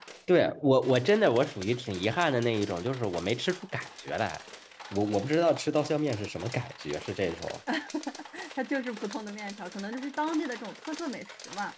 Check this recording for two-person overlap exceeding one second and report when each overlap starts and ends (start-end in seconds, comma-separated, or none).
none